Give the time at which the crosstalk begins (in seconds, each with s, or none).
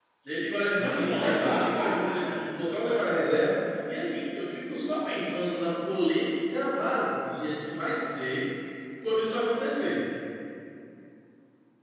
0.8 s